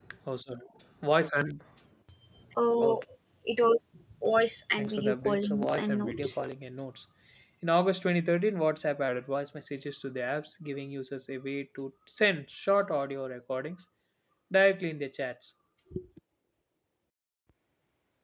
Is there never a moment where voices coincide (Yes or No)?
No